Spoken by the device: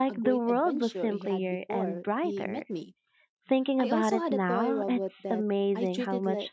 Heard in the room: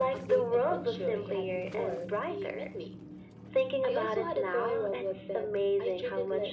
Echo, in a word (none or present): present